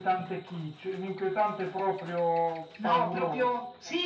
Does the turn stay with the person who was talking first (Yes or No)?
No